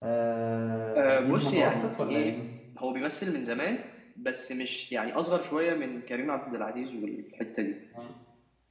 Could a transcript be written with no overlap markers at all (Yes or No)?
No